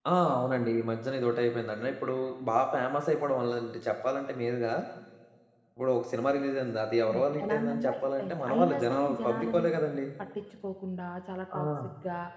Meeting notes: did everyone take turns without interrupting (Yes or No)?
No